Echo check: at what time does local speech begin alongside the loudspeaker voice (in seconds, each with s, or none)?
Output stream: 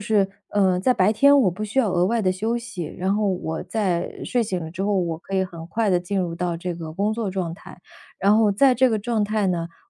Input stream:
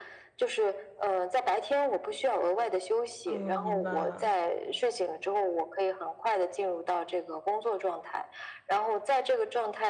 3.2 s